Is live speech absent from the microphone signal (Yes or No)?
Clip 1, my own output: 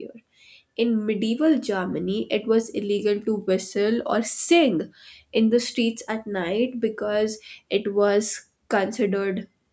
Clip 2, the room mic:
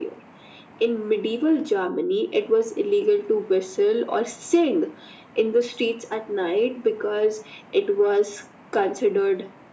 Yes